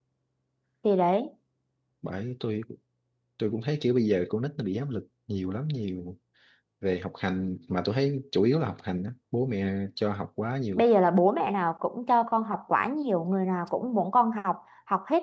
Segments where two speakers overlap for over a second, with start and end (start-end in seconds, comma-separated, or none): none